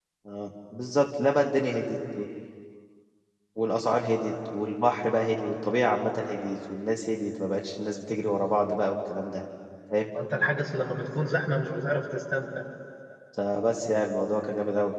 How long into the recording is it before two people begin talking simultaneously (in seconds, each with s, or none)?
none